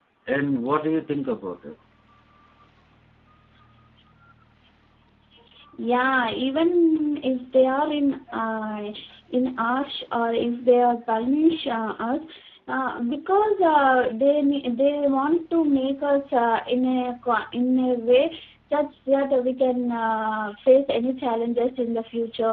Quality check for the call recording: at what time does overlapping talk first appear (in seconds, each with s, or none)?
none